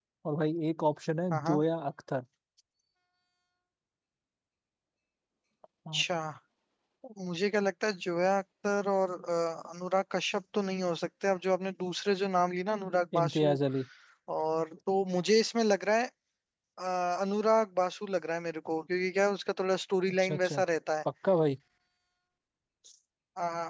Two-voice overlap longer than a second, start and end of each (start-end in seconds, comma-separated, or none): none